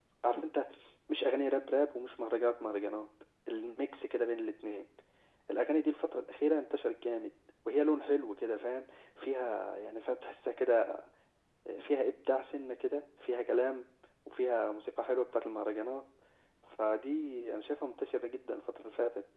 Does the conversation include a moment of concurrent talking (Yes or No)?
No